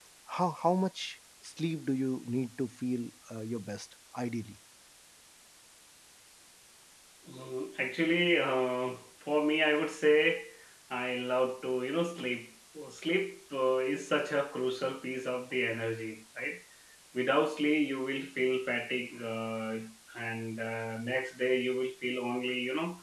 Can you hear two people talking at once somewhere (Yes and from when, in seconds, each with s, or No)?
No